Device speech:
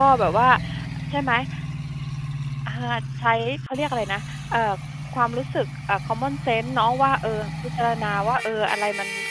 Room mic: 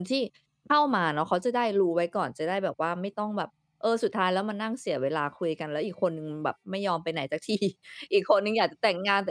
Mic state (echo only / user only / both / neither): user only